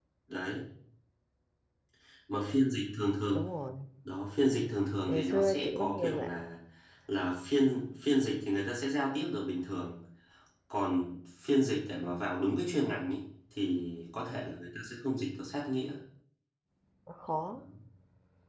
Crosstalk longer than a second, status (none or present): present